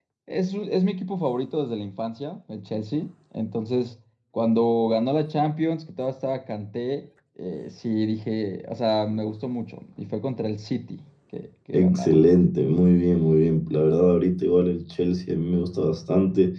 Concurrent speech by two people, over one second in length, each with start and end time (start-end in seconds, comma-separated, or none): none